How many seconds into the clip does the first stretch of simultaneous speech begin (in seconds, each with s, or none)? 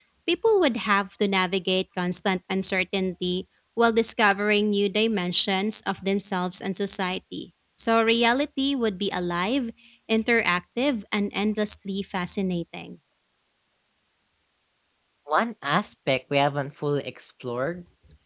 none